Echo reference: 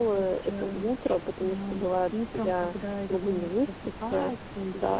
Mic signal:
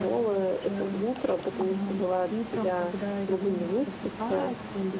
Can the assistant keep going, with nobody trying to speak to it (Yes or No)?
No